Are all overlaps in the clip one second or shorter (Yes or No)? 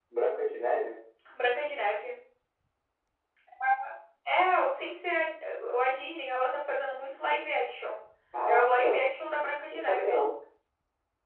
Yes